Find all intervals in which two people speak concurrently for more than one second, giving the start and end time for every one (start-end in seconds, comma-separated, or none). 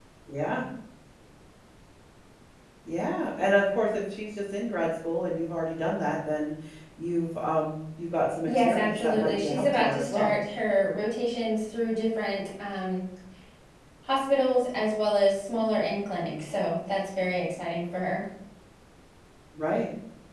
8.5-10.3